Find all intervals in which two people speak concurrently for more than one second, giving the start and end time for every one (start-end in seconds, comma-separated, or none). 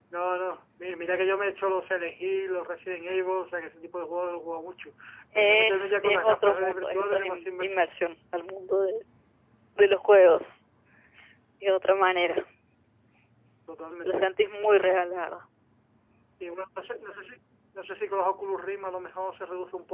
5.4-7.8